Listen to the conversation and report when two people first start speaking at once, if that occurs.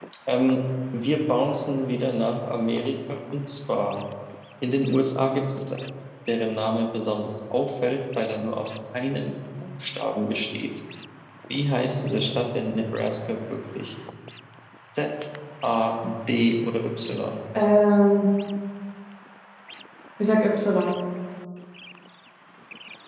none

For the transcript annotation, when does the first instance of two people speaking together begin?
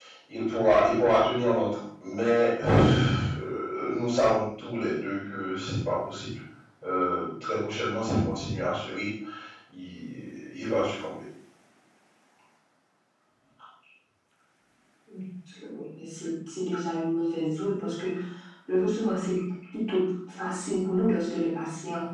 none

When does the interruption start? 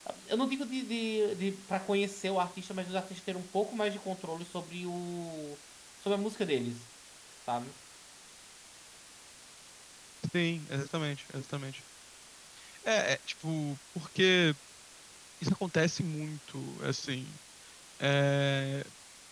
none

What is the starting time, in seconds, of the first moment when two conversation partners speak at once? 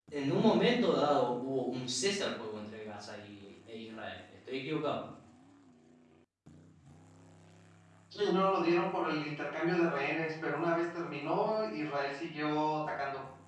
none

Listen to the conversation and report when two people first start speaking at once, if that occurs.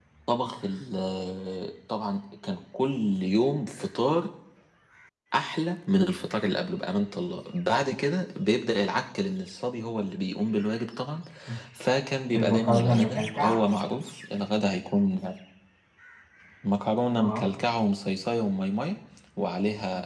12.3 s

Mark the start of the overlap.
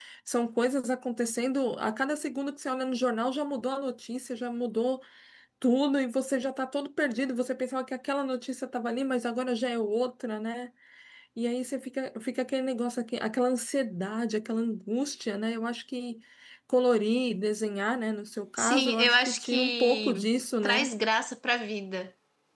18.6 s

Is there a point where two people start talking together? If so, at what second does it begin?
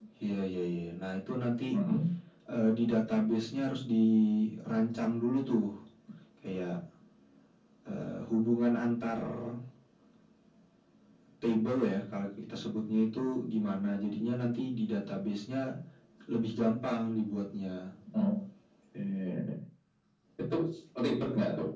none

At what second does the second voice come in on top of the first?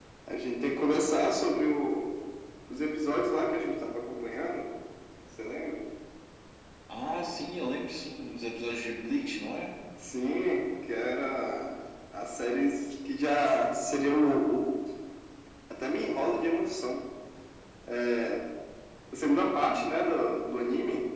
none

